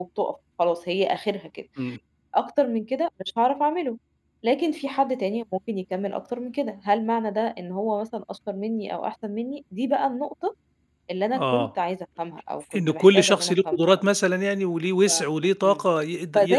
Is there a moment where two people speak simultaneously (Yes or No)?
Yes